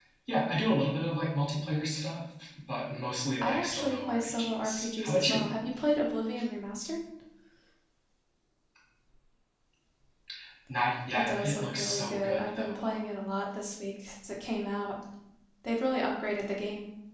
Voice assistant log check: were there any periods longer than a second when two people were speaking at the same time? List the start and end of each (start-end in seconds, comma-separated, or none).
3.4-5.4, 11.1-12.8